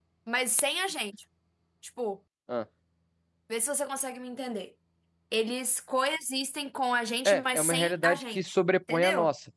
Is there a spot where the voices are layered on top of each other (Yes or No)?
Yes